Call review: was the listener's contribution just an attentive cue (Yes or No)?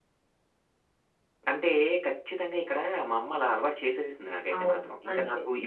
No